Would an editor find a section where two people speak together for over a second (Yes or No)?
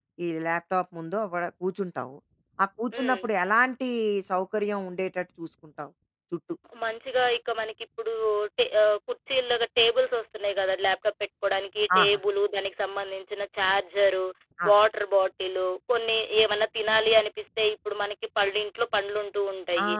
No